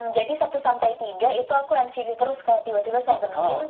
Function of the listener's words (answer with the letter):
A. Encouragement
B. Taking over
A